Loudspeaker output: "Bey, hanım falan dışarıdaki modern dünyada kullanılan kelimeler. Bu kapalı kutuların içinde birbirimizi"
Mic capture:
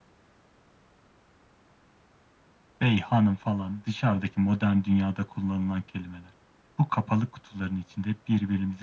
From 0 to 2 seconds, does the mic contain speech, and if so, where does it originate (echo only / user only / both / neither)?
neither